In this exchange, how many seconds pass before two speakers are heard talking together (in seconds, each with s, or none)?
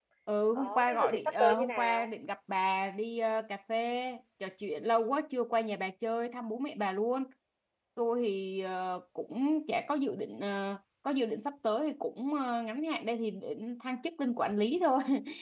0.6 s